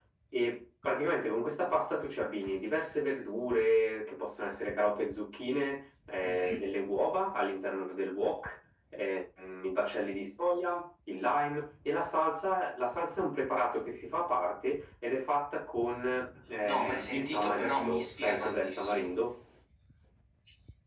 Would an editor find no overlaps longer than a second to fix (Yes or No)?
No